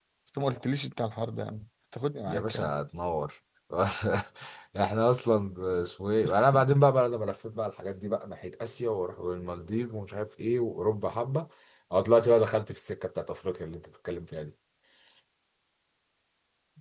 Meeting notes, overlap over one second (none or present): none